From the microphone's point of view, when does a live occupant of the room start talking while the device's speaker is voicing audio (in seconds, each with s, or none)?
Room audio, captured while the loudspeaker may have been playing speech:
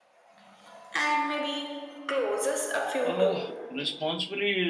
3.0 s